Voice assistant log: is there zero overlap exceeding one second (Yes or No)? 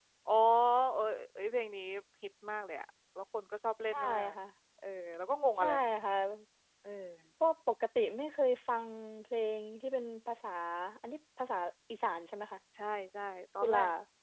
Yes